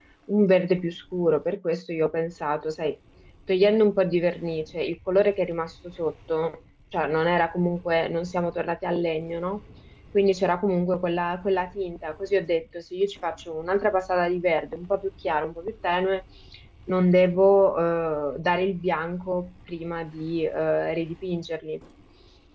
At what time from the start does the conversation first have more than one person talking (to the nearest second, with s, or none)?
none